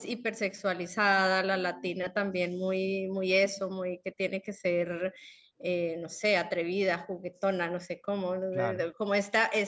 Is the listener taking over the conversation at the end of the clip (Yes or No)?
No